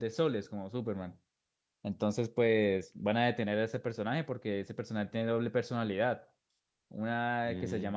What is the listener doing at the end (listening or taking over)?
listening